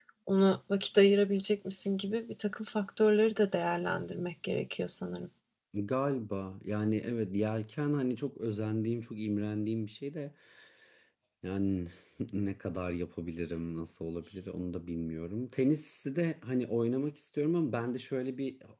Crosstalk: none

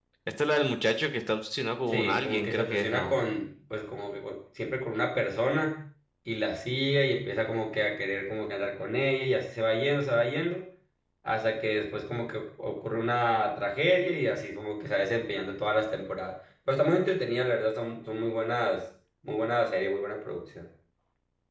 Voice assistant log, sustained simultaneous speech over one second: present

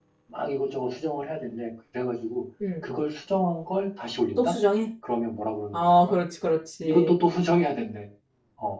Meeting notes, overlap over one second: none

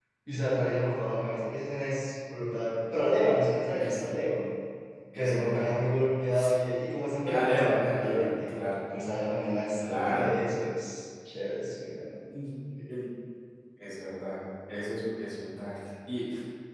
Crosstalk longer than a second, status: present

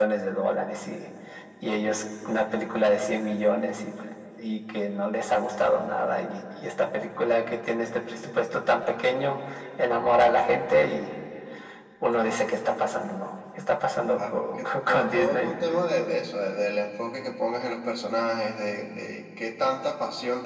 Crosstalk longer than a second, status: present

